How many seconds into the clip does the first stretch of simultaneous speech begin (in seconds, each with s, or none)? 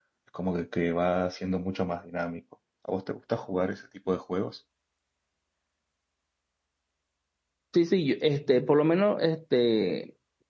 none